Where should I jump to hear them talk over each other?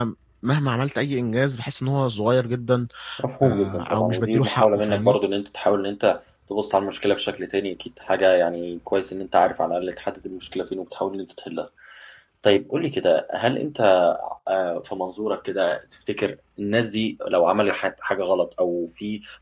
3.4 s

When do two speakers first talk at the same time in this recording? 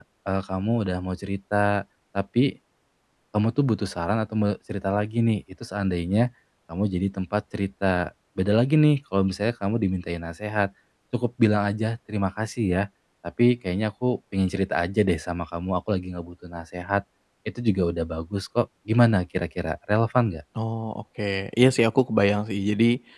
none

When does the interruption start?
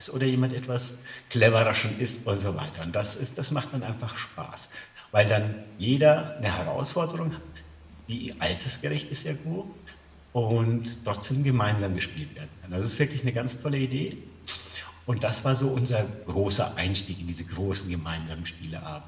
none

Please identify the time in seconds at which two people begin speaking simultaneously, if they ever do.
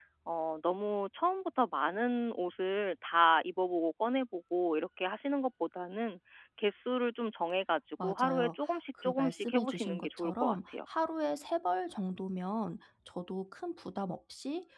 8.0 s

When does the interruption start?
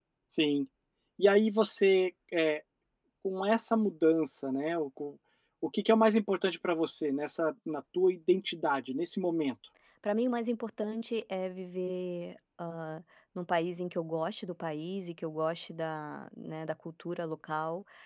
none

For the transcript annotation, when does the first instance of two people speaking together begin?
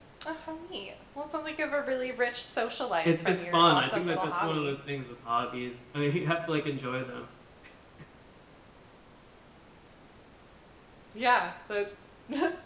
3.0 s

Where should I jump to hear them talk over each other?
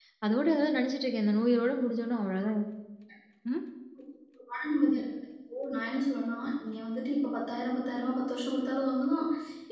none

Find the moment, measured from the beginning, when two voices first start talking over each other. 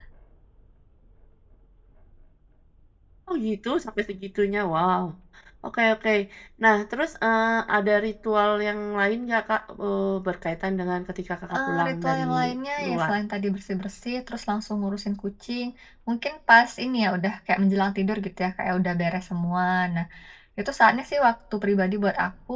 11.5 s

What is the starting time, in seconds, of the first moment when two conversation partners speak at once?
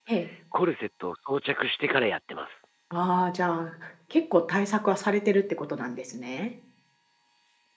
none

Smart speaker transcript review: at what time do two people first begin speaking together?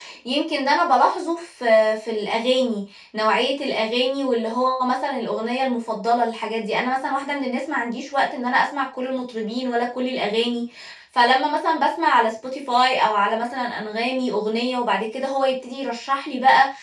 none

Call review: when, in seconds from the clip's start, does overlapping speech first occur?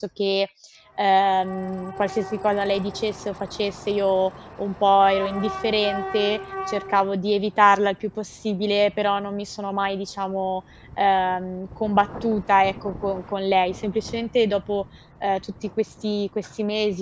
none

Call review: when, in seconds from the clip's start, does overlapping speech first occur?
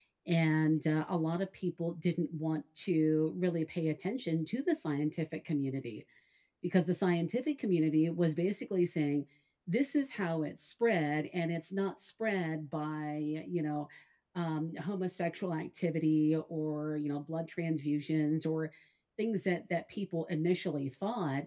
none

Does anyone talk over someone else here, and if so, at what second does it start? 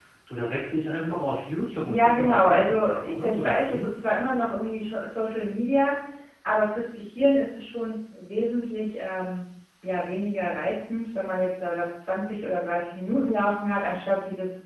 1.9 s

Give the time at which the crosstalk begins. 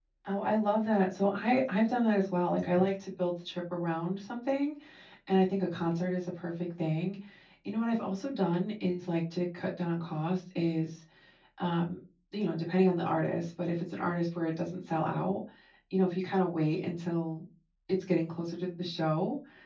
none

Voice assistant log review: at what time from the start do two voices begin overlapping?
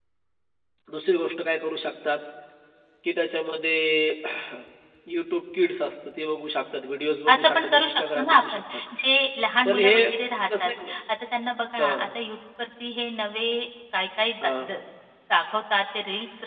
7.3 s

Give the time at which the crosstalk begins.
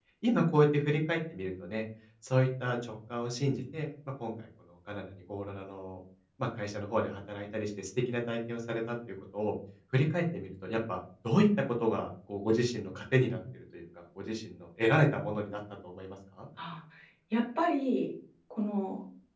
none

